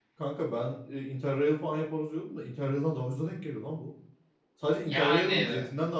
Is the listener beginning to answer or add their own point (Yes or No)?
No